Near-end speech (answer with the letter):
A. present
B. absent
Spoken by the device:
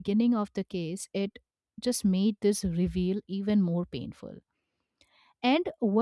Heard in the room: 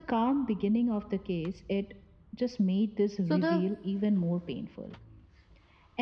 A